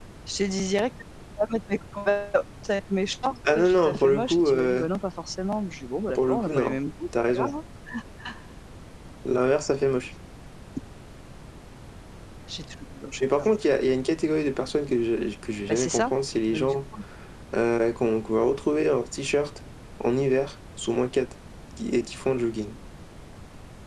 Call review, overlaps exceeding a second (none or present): present